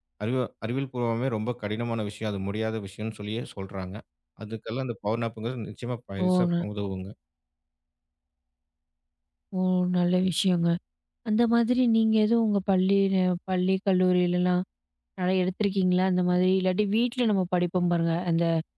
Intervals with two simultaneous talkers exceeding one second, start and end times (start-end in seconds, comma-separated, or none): none